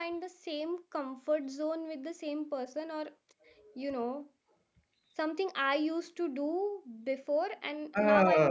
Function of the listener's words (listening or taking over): taking over